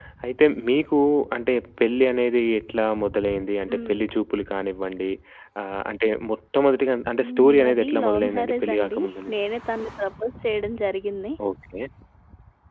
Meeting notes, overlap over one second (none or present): present